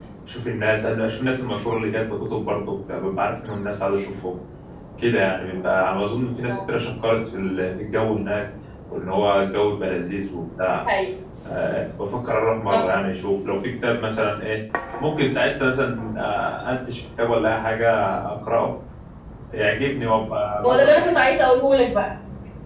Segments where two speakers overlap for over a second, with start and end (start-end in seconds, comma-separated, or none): none